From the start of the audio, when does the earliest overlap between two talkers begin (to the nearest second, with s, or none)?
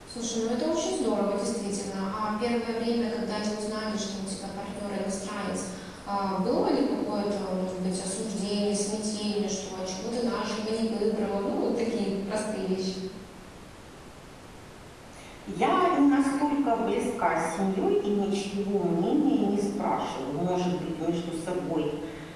none